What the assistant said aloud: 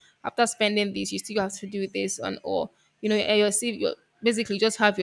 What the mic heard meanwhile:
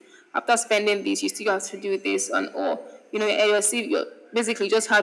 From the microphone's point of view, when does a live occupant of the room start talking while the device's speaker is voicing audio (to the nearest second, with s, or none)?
none